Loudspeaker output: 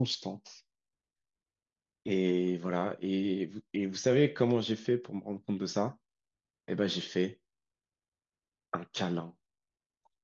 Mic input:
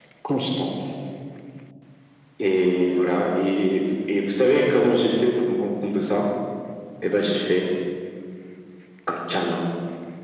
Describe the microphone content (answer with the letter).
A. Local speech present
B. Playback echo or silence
B